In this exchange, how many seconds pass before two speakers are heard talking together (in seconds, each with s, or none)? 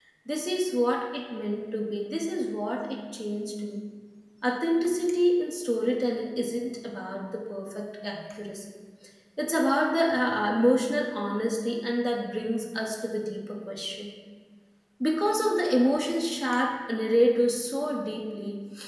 none